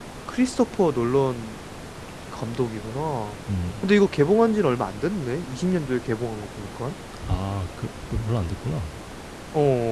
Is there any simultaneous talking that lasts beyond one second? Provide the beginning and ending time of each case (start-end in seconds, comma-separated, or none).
none